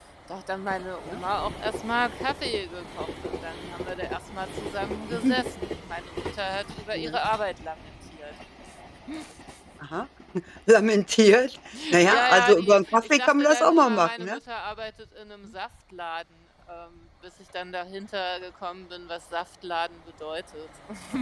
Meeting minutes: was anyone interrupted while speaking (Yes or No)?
Yes